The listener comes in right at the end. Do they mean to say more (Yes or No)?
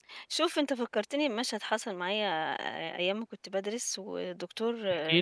No